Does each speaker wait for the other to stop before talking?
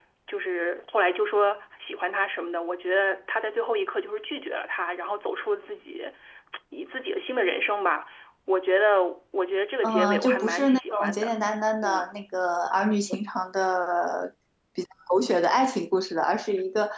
No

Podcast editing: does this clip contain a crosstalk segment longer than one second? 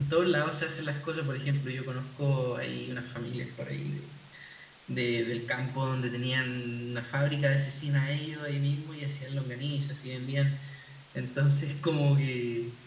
No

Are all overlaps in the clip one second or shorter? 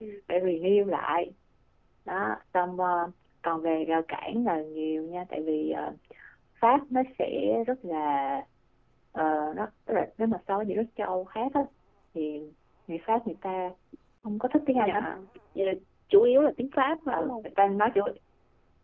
Yes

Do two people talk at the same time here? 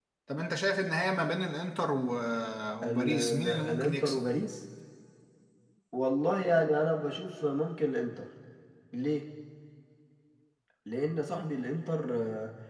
Yes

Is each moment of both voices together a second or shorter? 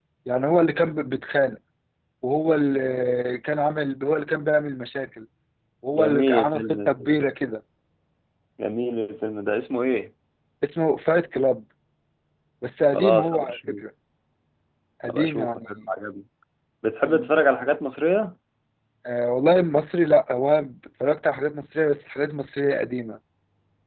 No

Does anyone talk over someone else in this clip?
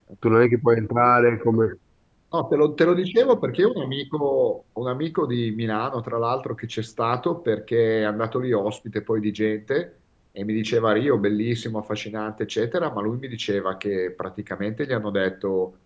No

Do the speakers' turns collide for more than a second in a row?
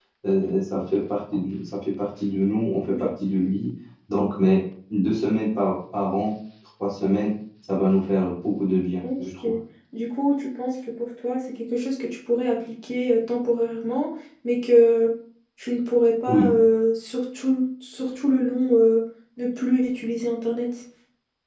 No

